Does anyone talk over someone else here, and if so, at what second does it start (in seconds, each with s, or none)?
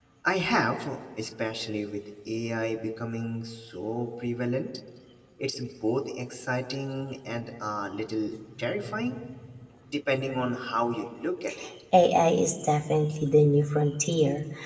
none